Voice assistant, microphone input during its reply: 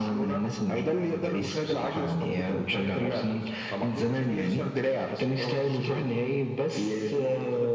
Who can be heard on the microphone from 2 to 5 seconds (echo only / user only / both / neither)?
echo only